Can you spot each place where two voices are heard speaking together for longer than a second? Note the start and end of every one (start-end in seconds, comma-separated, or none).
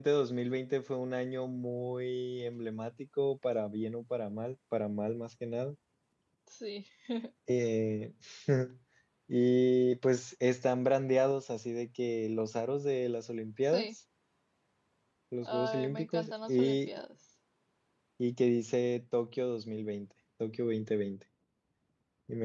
15.4-16.9